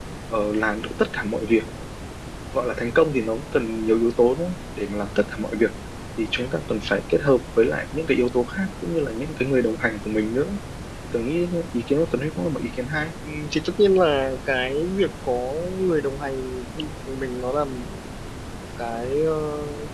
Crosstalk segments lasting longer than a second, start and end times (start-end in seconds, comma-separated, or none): none